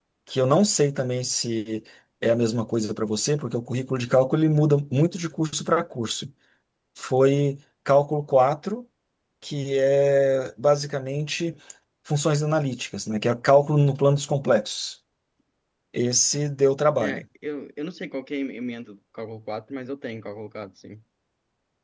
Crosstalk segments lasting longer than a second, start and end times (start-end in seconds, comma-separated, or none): none